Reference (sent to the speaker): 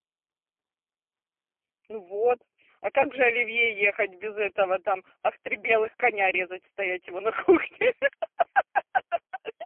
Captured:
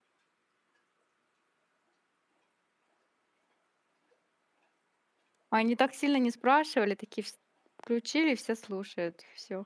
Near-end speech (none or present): present